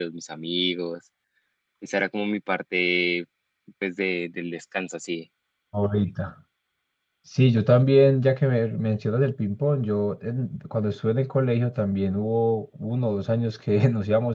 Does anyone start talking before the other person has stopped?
No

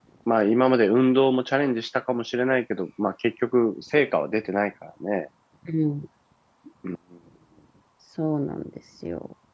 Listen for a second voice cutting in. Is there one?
No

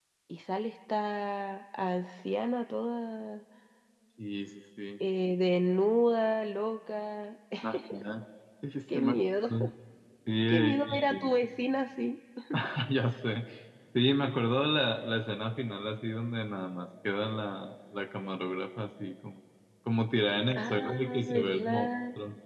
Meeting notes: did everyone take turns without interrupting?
No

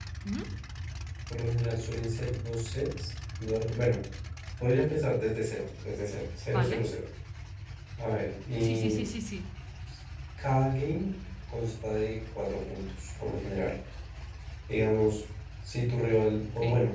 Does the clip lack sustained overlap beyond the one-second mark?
Yes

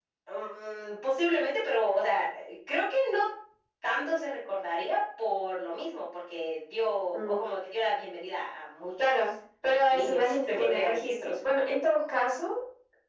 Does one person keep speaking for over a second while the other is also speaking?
Yes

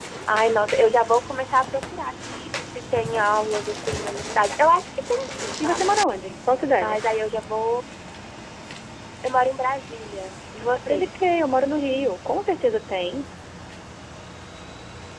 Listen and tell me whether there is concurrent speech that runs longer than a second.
No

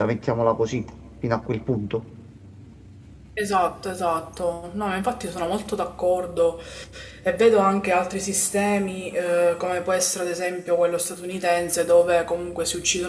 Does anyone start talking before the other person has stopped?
No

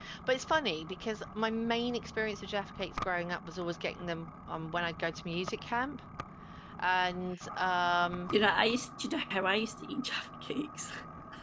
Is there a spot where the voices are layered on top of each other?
No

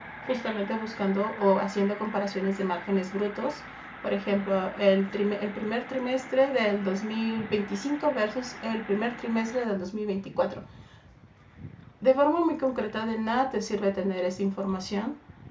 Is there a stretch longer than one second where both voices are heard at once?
No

